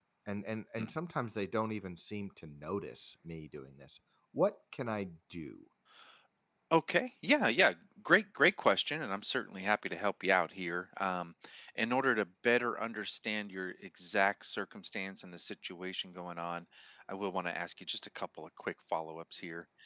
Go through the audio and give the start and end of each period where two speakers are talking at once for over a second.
none

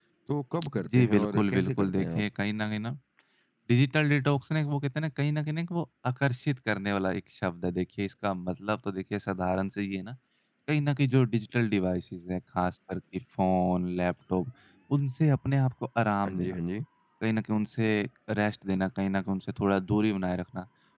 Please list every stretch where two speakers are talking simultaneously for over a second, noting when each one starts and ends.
0.8-2.2

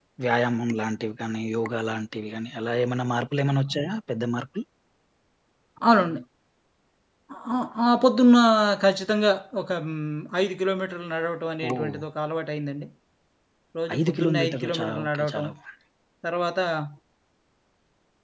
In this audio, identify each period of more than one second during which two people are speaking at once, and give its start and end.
14.0-15.5

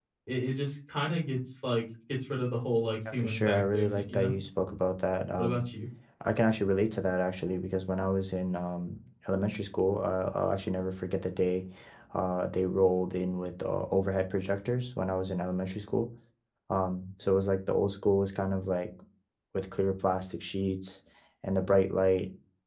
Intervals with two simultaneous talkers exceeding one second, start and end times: 3.1-4.3

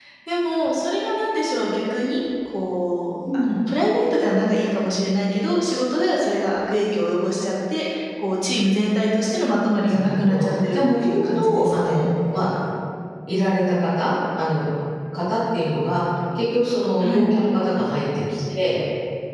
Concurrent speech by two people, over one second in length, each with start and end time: 9.9-12.1

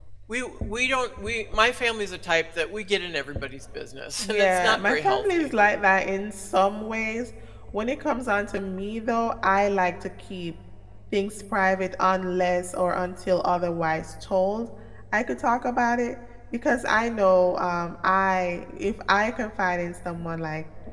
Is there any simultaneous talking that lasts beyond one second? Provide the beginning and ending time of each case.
4.2-5.5

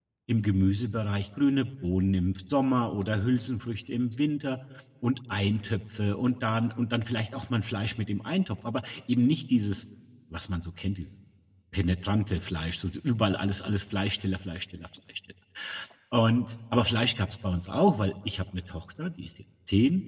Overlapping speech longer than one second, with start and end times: none

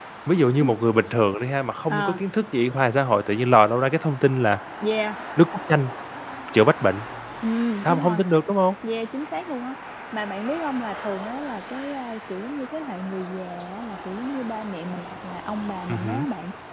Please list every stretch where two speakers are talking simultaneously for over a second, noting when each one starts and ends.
none

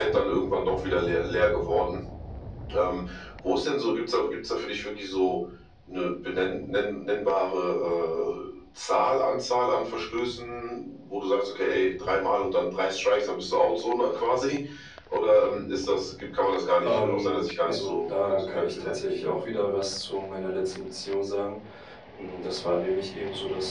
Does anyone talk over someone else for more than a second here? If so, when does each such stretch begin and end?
16.8-19.0

